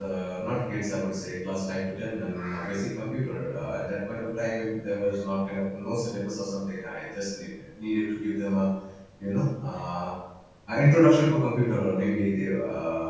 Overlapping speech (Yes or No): No